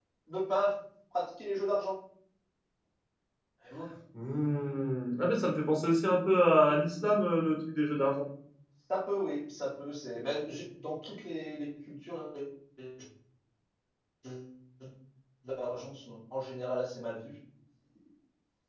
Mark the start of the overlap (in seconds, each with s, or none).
none